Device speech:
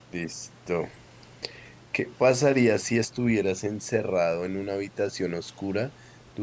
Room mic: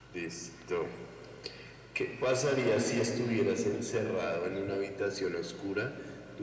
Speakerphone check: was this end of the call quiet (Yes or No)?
No